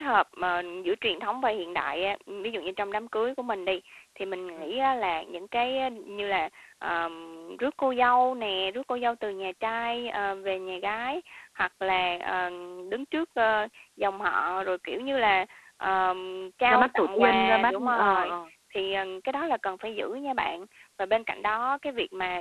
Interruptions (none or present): present